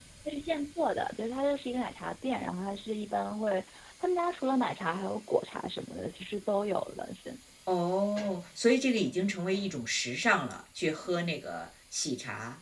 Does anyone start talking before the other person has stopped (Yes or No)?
No